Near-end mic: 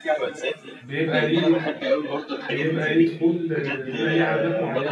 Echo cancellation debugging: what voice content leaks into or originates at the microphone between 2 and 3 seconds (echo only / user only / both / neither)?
both